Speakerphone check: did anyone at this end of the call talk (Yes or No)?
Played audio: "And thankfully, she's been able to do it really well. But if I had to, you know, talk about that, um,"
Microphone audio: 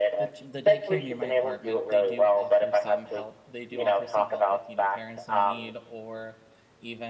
Yes